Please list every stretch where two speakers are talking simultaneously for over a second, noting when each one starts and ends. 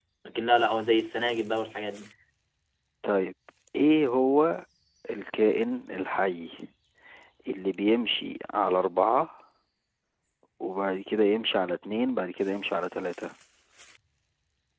none

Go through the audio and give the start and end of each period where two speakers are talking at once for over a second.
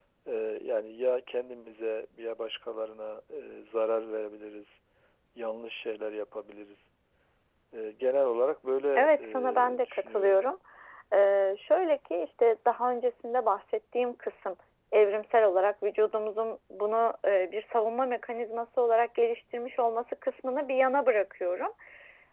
9.0-10.4

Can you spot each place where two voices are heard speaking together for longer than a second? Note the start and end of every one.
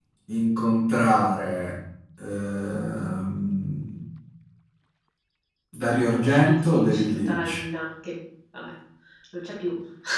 6.2-7.5

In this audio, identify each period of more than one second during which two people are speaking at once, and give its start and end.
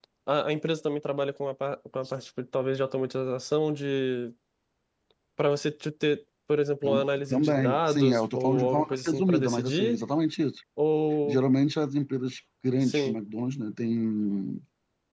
6.8-10.0

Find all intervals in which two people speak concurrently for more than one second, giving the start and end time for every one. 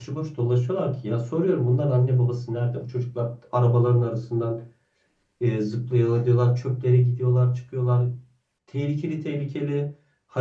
none

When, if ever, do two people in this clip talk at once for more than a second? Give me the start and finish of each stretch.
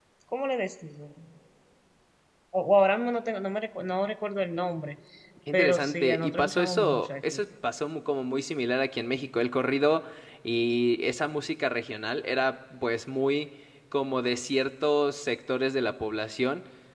5.5-7.4

